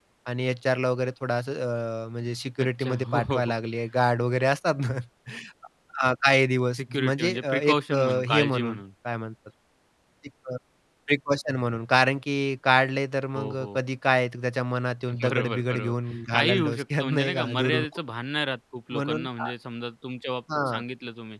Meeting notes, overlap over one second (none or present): present